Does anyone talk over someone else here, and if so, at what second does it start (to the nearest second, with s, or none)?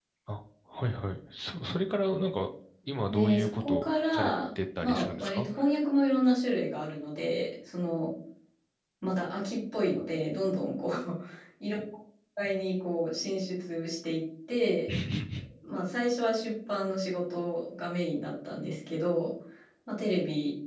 3 s